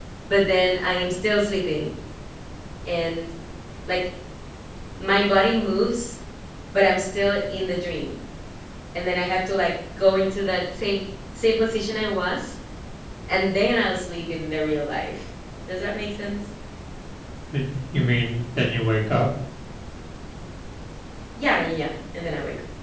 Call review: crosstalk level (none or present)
none